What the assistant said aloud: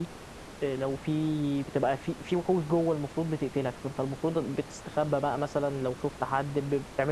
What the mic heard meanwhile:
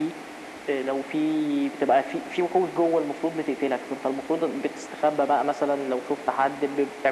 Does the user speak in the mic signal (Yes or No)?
No